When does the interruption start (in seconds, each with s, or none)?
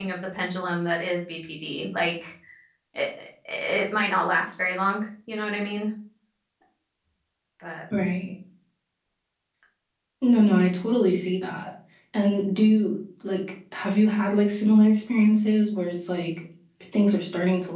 none